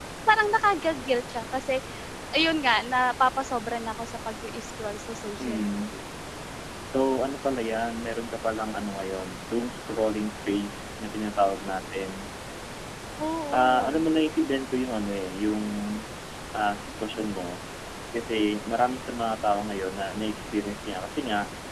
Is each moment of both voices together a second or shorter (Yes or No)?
Yes